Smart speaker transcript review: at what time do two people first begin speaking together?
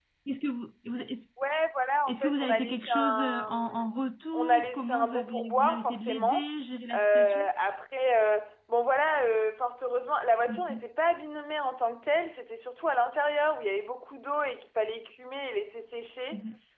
2.1 s

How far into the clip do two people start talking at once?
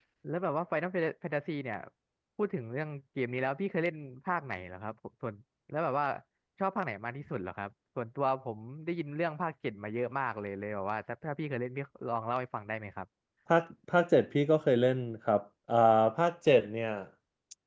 none

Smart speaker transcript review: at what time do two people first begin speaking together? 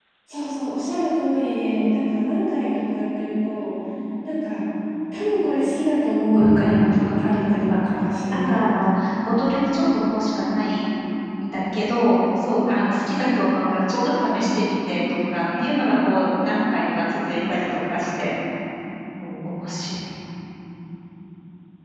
6.3 s

